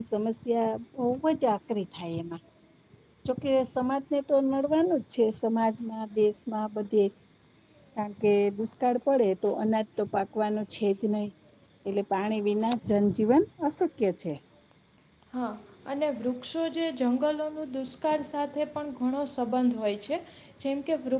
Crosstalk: none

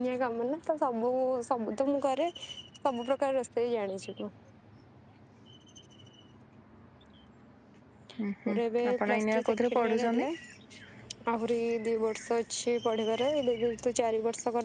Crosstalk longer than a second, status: present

